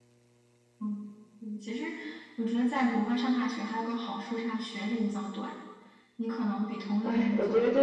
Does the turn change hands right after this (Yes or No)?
Yes